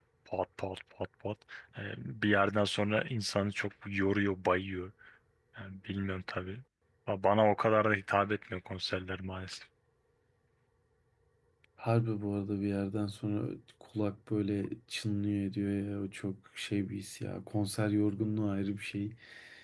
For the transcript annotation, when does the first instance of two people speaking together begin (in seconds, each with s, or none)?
none